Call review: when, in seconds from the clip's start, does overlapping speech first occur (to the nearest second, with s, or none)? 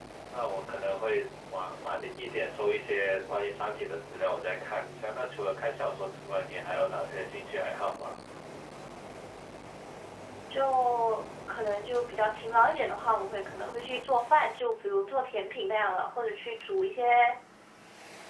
none